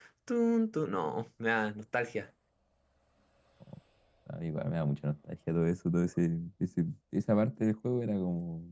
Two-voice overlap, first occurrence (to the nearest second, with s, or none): none